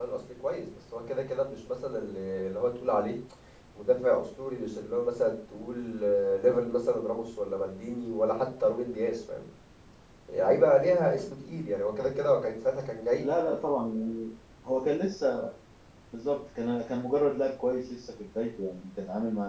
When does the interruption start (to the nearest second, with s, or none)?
none